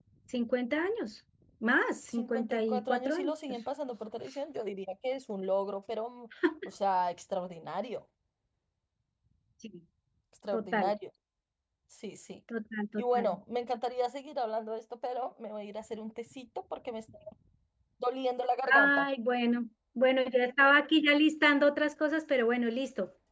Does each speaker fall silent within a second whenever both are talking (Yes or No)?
No